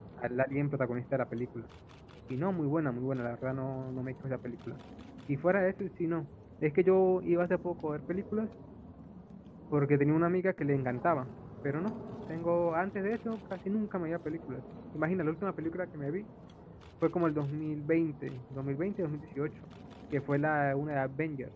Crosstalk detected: No

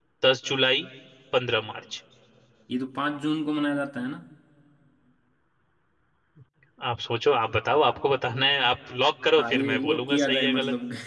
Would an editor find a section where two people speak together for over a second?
Yes, from 9.4 s

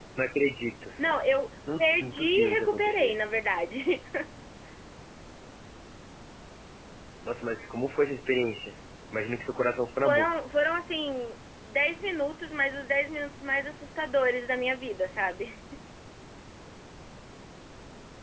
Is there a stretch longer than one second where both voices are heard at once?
Yes, from 1.8 s

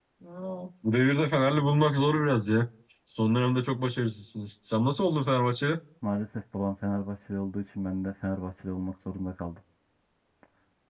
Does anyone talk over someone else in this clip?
No

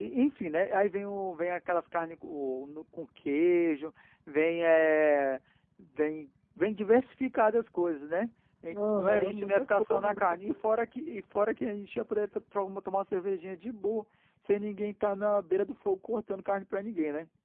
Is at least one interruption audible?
Yes, from 8.7 s

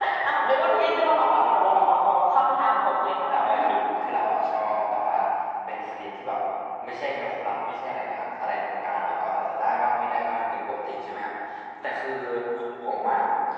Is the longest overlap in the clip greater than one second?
No

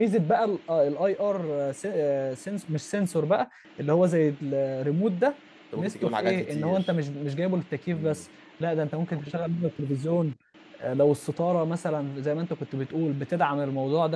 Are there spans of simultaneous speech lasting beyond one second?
Yes, from 5.8 s

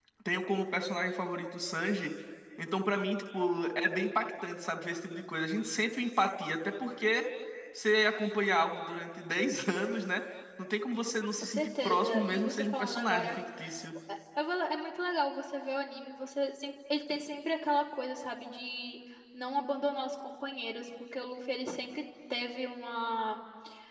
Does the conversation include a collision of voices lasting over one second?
Yes, from 11.4 s

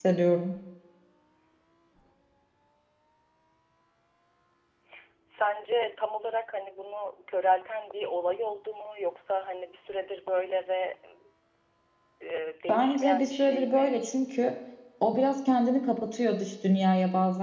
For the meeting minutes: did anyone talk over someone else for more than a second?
Yes, from 12.7 s

